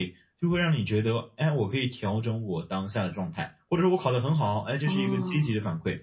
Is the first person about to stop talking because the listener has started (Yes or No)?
No